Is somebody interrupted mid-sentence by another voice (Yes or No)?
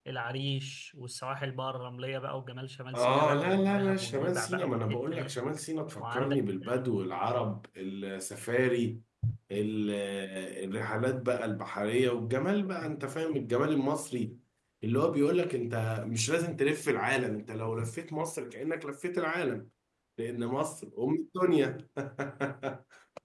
Yes